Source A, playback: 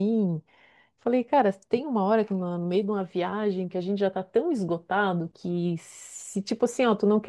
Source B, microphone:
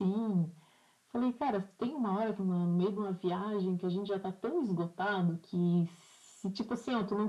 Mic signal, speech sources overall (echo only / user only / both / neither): echo only